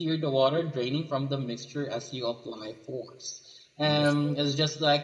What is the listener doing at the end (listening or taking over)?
listening